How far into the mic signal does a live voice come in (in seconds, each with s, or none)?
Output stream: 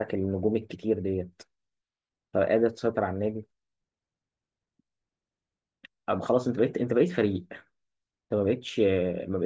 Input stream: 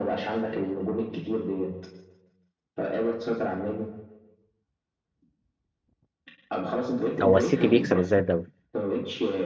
7.2 s